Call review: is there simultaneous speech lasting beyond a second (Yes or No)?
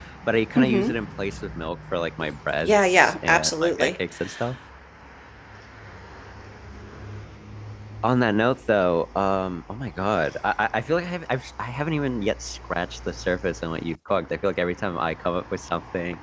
Yes